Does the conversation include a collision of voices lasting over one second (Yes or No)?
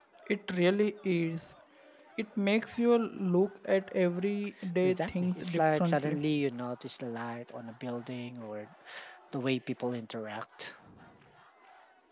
Yes